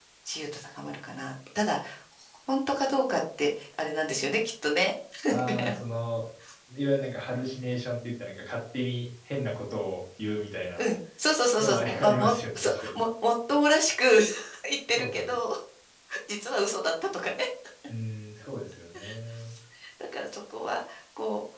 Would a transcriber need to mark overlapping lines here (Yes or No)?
Yes